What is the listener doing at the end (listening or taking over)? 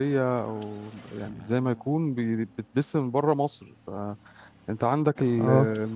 listening